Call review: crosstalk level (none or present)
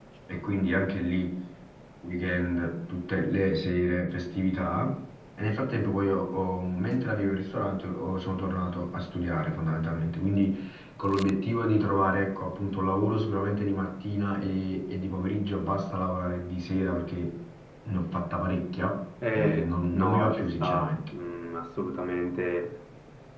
present